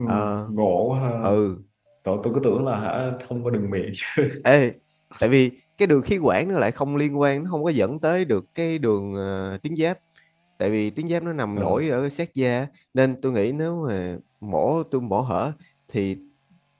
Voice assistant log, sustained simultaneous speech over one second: none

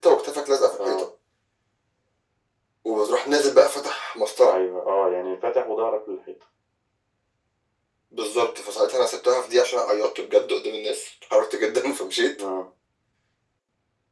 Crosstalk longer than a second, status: none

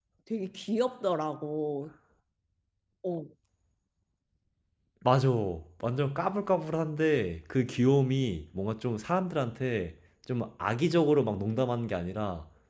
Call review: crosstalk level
none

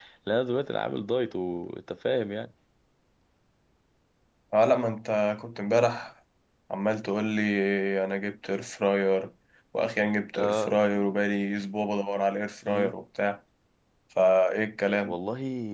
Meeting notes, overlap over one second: none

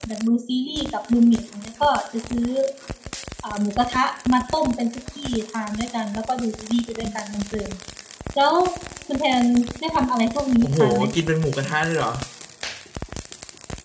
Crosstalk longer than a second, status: none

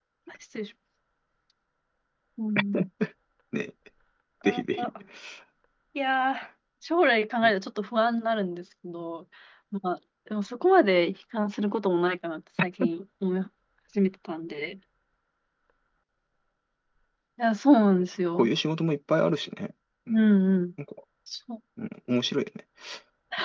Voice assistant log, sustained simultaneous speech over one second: none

